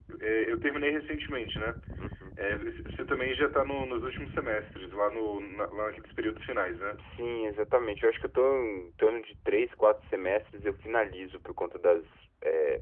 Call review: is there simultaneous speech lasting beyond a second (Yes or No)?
No